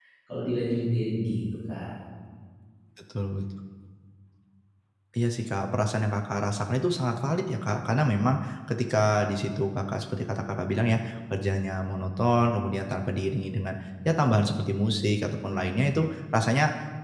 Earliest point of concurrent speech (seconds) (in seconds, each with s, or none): none